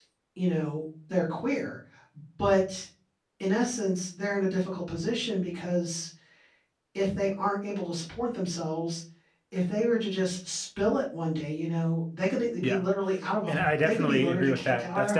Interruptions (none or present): present